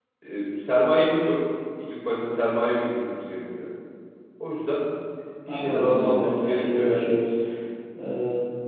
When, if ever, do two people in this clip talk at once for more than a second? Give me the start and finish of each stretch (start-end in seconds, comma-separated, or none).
5.5-7.1